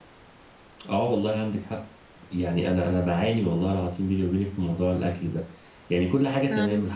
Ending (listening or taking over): listening